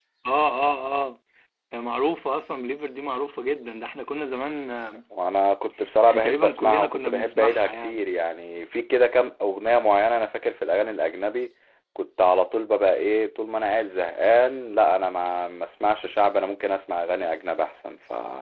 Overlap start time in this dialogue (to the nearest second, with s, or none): 6 s